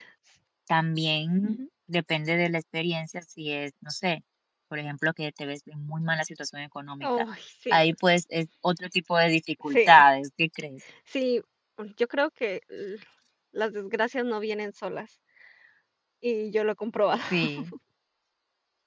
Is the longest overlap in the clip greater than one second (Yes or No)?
No